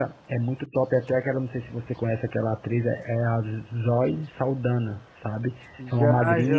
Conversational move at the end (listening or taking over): taking over